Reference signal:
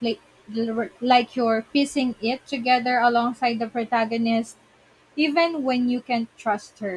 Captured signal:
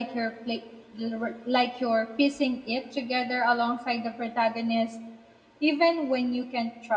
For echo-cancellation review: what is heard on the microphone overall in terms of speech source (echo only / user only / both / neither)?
echo only